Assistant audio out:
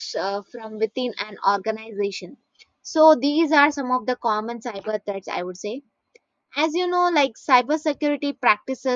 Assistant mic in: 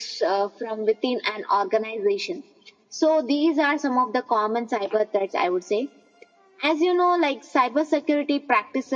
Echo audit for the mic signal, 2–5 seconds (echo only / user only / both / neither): echo only